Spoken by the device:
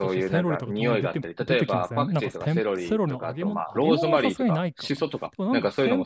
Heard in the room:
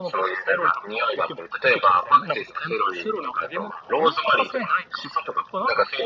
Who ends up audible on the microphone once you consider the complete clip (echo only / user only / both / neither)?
echo only